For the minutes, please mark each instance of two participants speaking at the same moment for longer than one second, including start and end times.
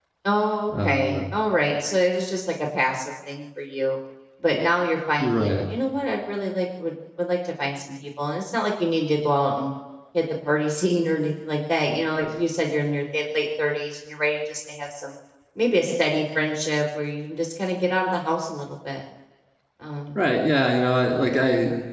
none

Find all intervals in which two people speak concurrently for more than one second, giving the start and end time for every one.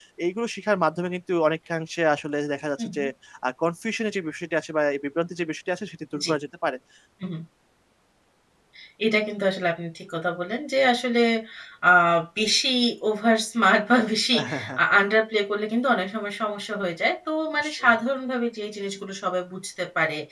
none

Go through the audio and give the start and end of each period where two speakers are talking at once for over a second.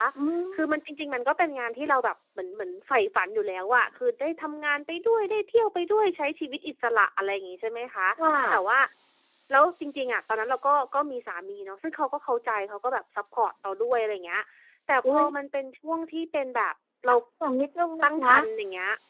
none

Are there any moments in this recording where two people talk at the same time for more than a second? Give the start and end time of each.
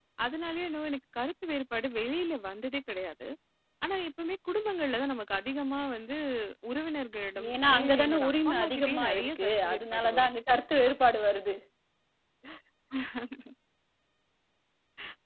7.5-10.3

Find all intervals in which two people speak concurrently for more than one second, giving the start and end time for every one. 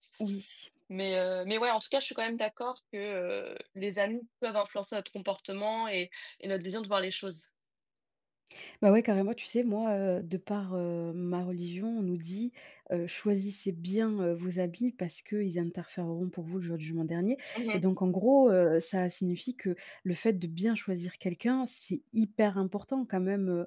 none

